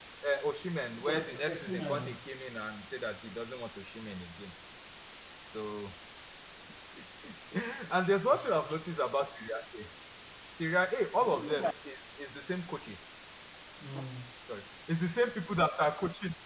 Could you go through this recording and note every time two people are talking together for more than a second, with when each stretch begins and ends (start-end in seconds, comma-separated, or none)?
0.9-2.1